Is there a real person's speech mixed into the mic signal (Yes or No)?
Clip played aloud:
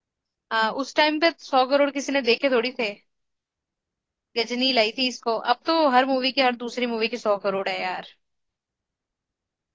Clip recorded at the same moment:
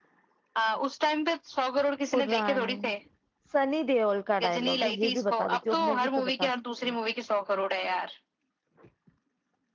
Yes